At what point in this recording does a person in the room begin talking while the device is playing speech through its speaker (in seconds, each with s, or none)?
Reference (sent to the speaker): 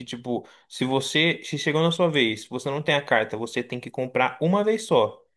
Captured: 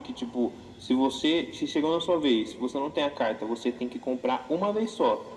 none